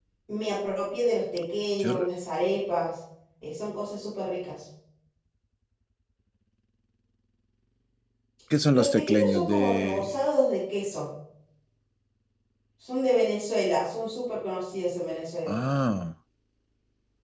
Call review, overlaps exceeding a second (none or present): present